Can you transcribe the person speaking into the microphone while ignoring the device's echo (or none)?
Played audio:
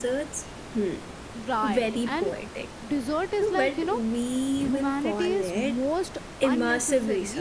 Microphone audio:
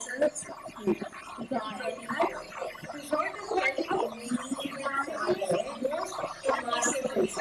none